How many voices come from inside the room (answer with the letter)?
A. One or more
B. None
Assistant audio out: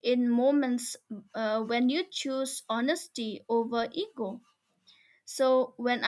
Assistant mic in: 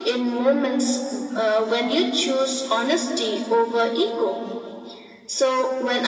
B